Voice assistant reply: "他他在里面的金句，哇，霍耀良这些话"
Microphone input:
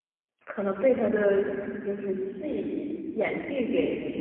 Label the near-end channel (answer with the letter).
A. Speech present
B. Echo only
A